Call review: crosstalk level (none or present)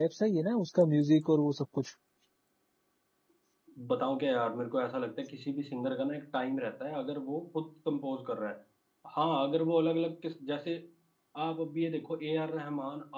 none